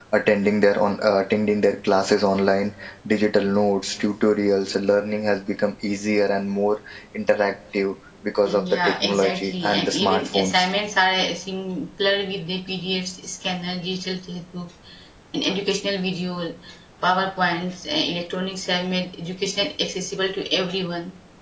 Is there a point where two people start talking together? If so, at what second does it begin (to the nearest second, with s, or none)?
8 s